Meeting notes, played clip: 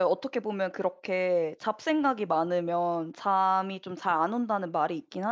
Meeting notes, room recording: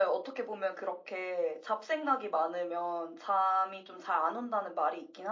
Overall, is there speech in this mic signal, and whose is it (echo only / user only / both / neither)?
echo only